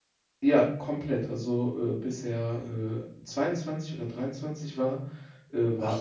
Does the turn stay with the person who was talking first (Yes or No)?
Yes